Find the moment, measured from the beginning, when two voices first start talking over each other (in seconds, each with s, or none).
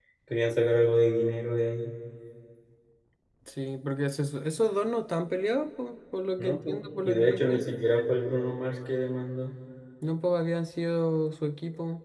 6.4 s